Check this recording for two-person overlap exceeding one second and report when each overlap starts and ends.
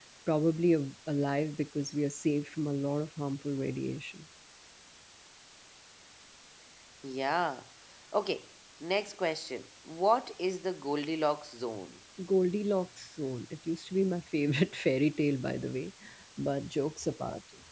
none

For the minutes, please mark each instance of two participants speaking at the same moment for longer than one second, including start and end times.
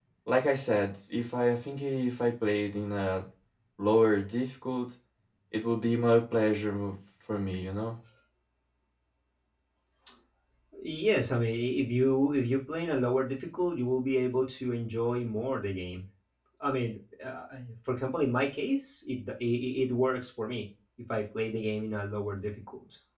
none

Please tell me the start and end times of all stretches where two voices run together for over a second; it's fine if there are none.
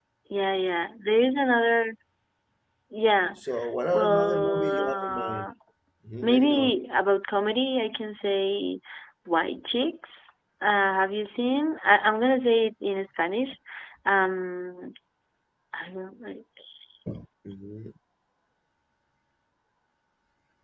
3.9-5.4

